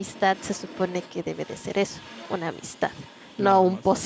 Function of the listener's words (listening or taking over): listening